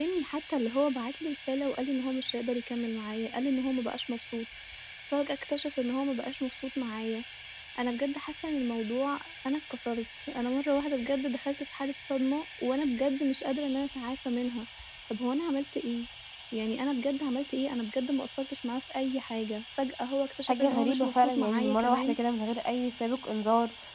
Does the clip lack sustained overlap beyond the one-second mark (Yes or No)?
No